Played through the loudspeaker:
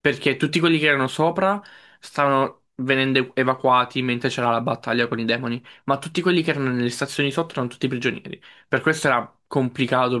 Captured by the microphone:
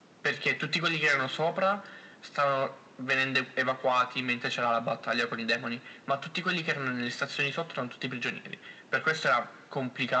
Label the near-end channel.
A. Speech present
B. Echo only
B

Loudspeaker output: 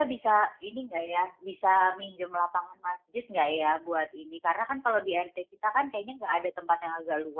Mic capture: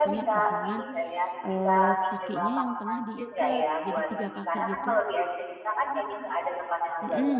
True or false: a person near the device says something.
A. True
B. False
A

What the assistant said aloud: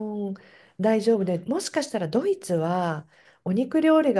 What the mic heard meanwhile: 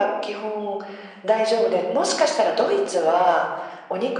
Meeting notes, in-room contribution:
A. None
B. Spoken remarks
A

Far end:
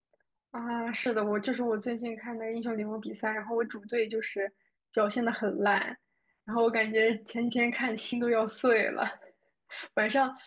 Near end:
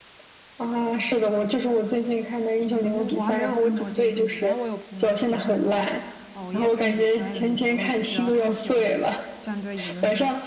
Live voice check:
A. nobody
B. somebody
B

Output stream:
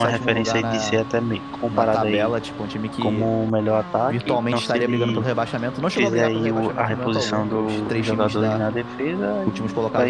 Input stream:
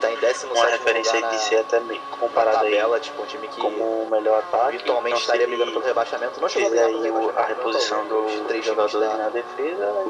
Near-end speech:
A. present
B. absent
B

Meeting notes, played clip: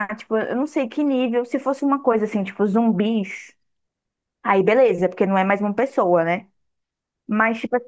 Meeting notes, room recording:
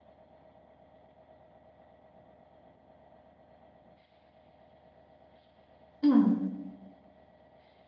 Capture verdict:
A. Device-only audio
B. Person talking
B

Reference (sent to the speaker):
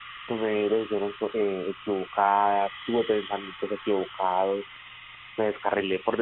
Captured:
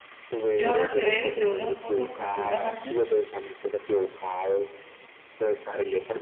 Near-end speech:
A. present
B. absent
A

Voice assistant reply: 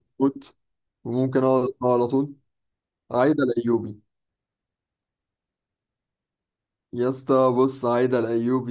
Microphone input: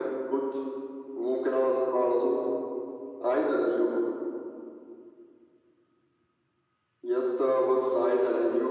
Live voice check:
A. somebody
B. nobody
B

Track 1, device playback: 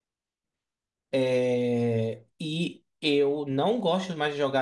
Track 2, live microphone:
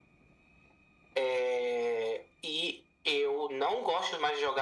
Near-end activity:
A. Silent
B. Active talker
A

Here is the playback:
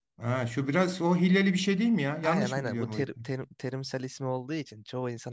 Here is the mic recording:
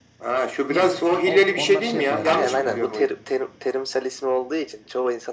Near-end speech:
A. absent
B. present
B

